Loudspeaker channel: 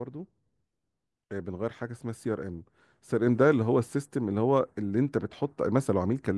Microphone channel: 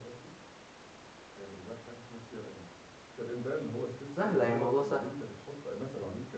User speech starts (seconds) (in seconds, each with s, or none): 4.1 s